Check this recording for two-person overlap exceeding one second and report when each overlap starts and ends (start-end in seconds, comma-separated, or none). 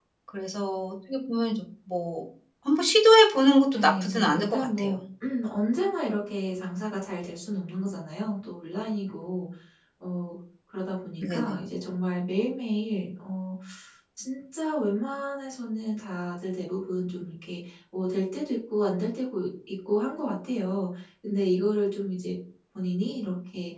3.7-4.9